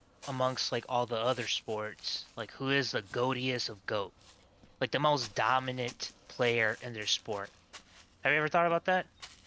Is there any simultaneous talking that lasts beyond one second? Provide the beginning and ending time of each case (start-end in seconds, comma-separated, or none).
none